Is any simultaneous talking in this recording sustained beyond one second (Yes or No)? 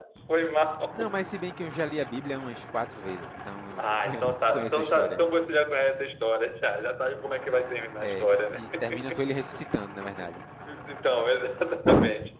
Yes